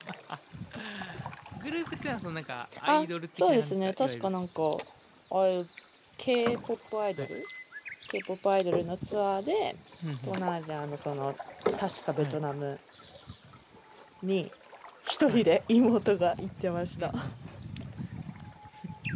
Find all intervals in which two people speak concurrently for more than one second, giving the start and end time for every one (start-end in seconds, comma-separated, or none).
2.9-4.3